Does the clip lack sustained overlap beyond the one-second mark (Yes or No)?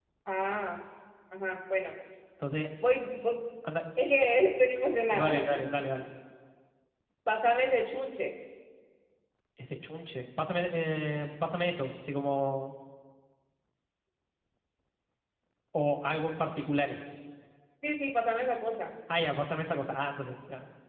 Yes